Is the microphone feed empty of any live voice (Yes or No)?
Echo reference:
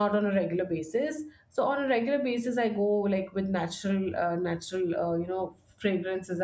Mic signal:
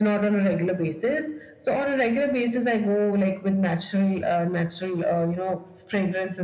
Yes